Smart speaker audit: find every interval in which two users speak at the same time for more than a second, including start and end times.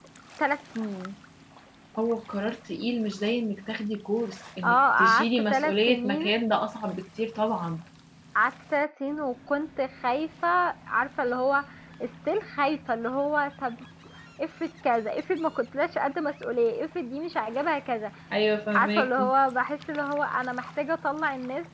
4.6-6.2

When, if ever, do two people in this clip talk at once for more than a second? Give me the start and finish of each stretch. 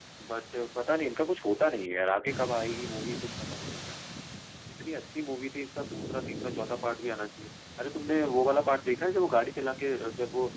none

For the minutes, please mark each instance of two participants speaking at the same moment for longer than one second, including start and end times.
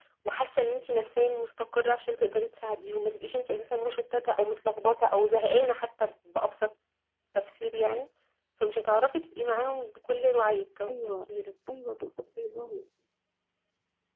none

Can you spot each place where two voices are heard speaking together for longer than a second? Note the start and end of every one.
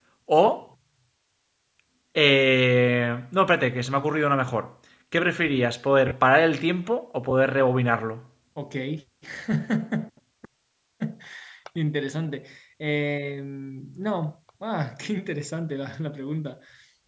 none

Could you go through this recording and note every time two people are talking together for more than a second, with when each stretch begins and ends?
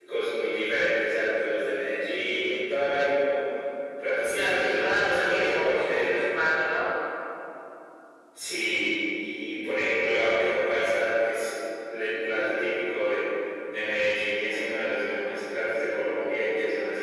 4.3-6.2

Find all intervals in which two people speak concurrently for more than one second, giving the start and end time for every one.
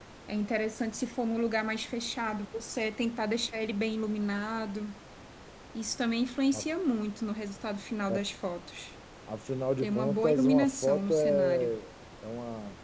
9.8-11.7

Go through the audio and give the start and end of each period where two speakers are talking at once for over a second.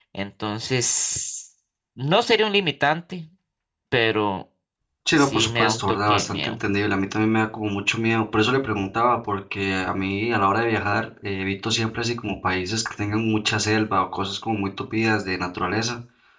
5.2-6.6

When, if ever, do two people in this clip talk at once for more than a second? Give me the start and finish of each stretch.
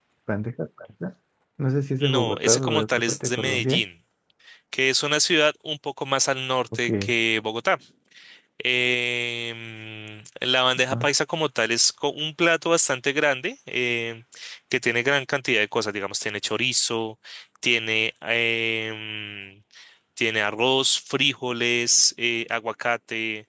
2.0-3.8

